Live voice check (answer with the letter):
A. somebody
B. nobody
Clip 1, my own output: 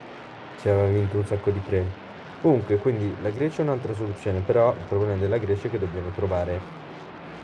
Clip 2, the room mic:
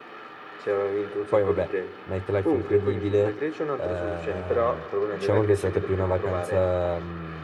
A